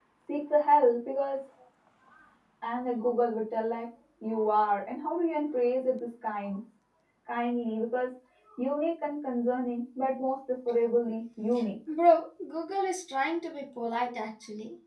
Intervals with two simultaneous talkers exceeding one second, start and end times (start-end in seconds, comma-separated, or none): none